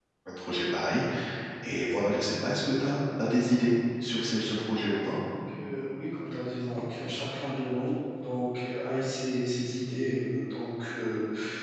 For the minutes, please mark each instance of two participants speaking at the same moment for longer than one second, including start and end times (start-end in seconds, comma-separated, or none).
none